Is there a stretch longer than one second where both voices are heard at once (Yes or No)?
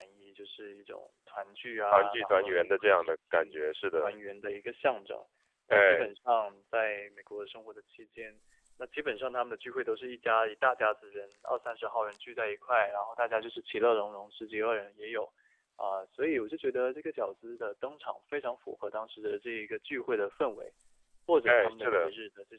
Yes